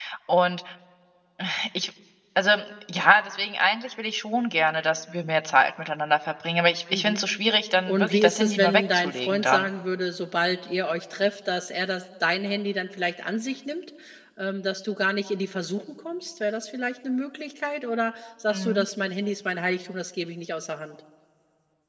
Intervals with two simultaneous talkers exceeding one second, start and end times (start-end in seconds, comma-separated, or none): 7.9-9.7